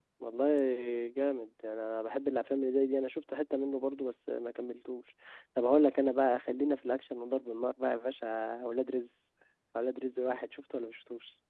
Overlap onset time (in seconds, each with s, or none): none